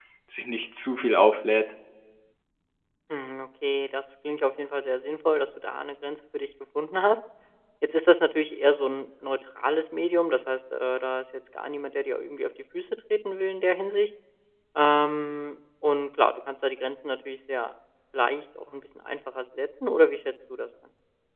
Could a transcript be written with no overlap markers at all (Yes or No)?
Yes